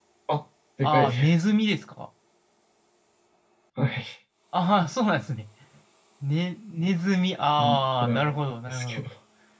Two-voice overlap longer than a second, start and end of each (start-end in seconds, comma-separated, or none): 7.6-9.0